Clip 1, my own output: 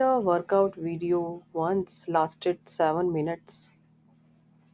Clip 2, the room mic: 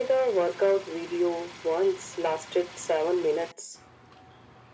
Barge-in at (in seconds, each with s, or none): none